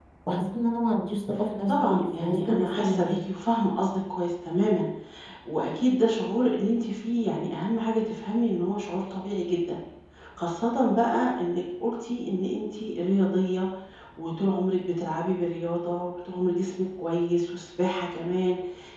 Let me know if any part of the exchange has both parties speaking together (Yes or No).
Yes